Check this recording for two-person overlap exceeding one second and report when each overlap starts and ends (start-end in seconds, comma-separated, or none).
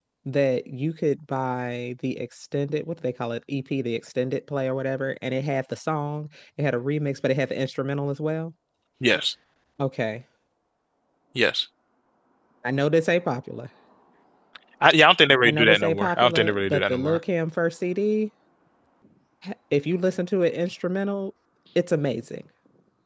15.4-17.2